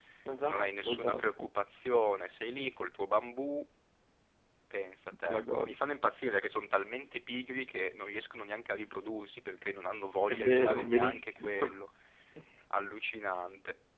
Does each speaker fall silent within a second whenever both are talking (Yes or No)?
No